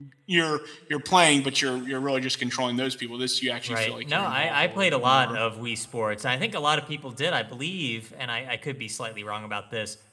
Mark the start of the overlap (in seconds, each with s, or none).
3.7 s